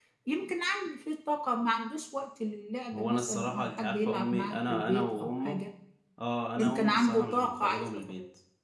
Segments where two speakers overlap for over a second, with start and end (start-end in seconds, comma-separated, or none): 2.9-5.6, 6.5-8.1